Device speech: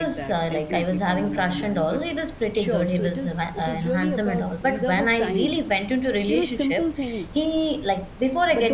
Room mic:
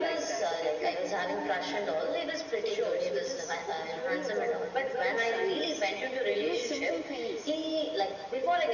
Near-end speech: none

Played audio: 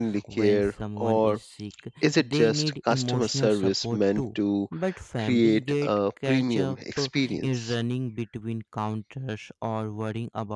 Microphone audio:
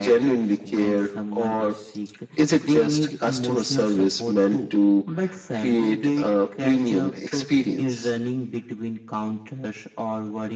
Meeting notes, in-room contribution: none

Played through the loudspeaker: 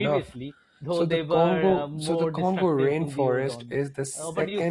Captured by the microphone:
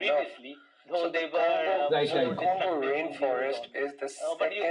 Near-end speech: present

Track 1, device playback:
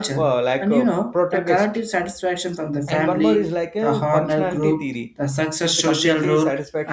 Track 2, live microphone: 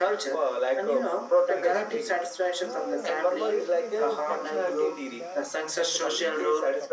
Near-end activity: present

